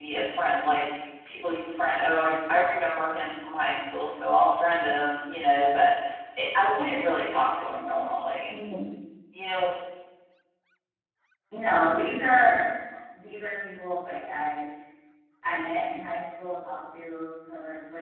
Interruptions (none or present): none